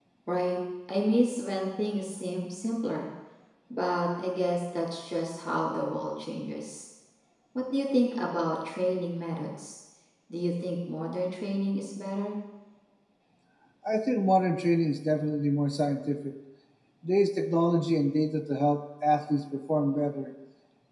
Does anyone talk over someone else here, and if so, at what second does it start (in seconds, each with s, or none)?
none